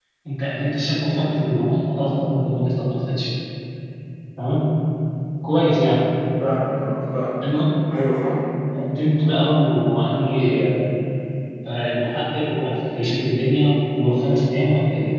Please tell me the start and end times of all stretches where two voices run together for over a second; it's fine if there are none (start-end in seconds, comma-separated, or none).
none